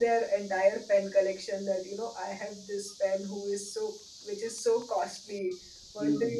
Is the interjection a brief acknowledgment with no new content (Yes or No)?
Yes